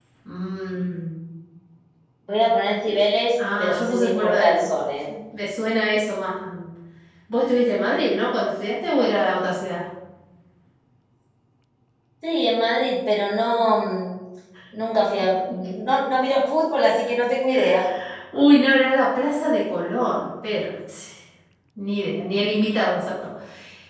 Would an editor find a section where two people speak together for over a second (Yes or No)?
Yes